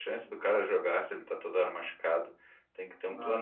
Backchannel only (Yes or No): Yes